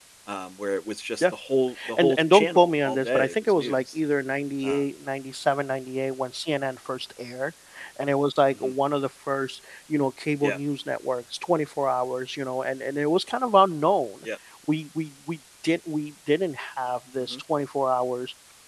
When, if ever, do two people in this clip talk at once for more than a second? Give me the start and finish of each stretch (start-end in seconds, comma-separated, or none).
2.0-3.8